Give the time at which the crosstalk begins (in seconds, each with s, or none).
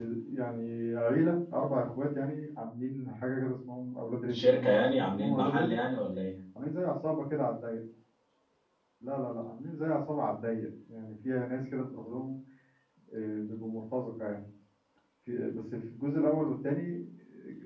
4.3 s